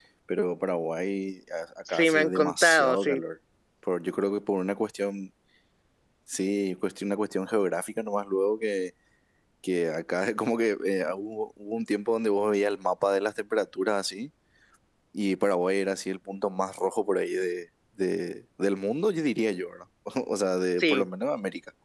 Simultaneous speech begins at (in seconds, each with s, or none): 1.9 s